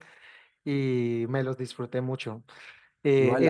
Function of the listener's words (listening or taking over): taking over